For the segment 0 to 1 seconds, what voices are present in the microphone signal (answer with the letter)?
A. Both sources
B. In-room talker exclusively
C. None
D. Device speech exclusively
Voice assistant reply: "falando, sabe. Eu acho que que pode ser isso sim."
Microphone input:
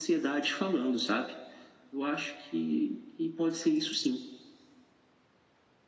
D